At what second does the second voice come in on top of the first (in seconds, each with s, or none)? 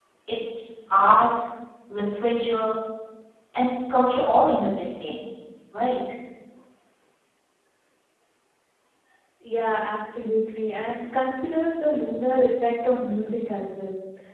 none